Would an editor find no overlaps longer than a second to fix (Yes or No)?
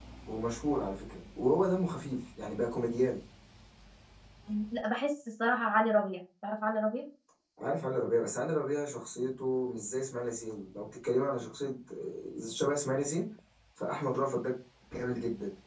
Yes